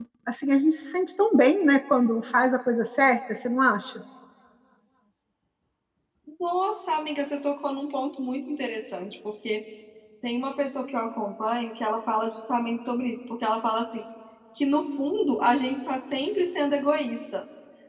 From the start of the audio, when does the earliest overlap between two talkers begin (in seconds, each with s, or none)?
none